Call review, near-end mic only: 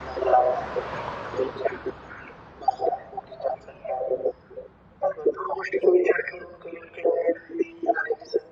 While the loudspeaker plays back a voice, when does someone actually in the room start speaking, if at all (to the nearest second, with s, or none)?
none